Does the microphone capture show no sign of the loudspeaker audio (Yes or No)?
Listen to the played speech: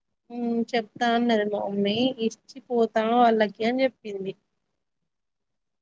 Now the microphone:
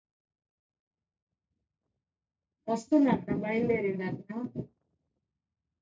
Yes